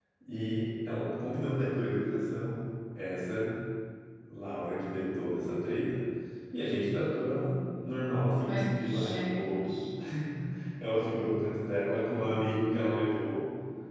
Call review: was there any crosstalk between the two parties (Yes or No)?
Yes